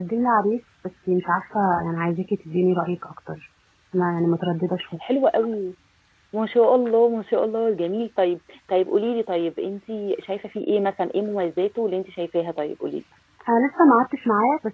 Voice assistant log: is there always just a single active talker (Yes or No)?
Yes